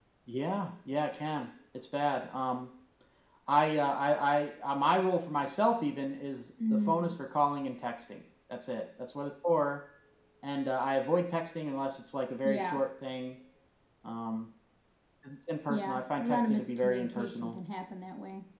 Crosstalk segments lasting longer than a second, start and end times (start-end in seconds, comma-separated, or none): 15.7-17.6